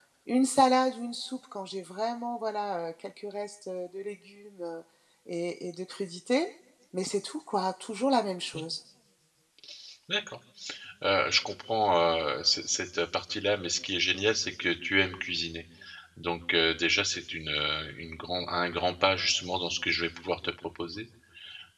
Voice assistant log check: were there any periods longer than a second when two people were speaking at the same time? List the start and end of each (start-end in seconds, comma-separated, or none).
none